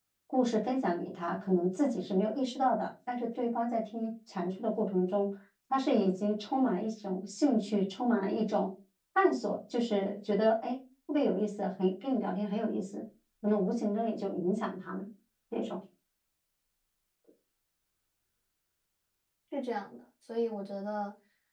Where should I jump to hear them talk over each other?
none

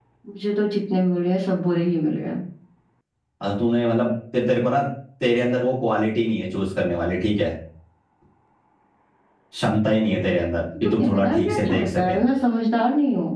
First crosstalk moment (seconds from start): 11 s

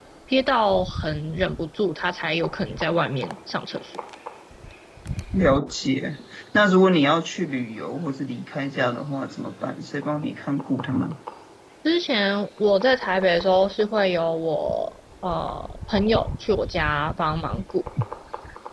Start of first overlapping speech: none

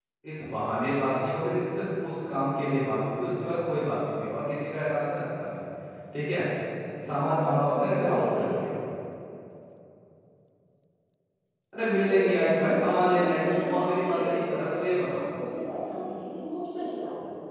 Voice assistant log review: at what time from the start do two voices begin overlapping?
7 s

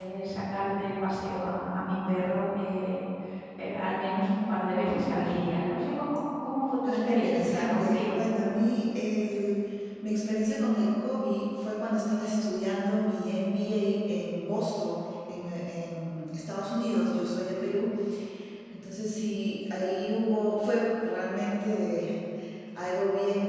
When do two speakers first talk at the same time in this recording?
7 s

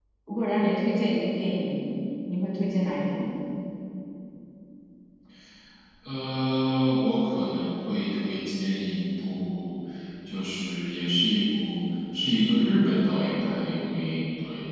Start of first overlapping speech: none

